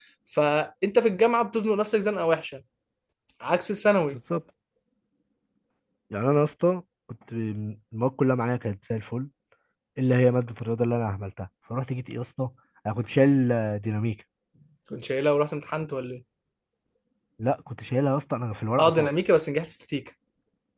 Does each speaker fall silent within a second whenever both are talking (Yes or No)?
Yes